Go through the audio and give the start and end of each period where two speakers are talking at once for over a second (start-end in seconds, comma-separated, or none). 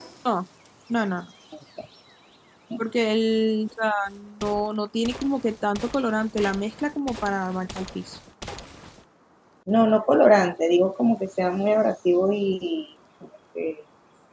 none